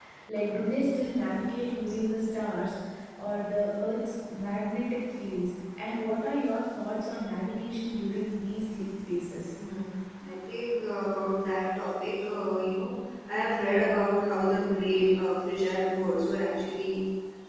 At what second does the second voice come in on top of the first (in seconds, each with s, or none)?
none